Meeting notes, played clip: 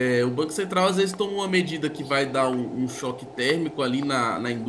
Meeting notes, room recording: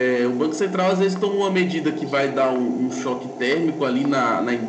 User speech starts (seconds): none

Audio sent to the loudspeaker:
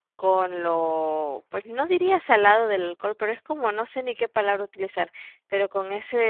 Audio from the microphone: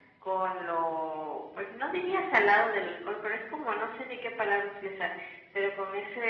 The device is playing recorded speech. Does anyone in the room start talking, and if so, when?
none

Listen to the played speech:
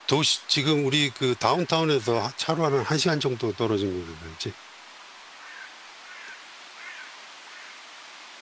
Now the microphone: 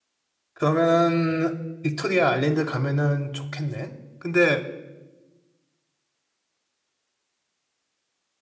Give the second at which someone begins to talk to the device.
0.5 s

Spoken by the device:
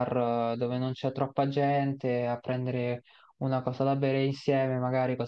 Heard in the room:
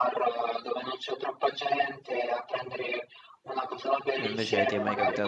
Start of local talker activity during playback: 4.2 s

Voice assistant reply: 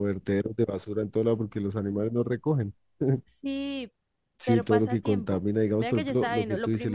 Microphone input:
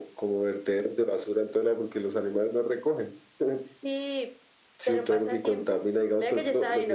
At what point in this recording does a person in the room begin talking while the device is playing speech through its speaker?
none

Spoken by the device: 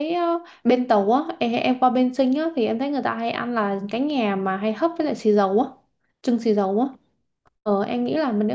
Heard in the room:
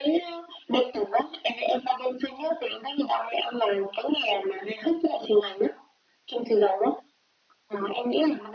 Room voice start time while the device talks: none

